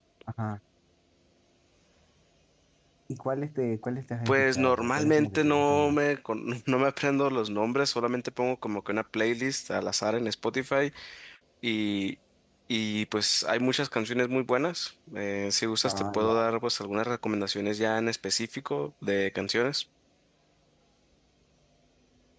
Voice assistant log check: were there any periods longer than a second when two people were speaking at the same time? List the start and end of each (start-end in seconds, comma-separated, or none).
4.3-6.0